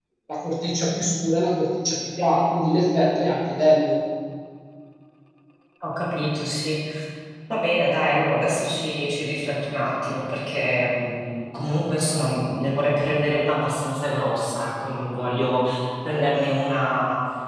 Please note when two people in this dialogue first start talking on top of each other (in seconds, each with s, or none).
none